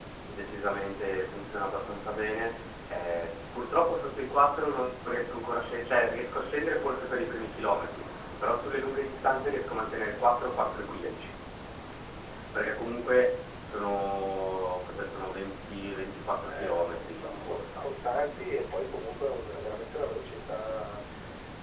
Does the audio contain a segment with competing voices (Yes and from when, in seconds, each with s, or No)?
Yes, from 16.4 s